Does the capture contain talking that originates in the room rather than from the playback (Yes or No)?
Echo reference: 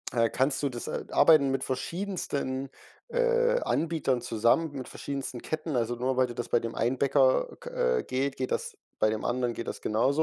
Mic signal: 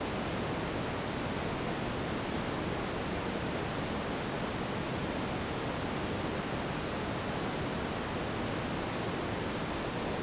No